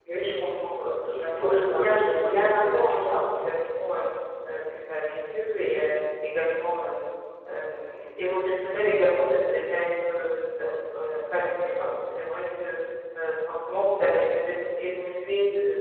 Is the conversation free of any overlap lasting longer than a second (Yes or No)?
No